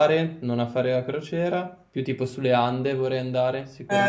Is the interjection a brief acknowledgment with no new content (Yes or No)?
No